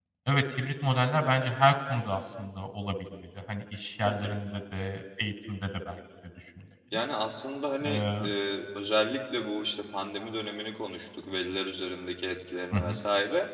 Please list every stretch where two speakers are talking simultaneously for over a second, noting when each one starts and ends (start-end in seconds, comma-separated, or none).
none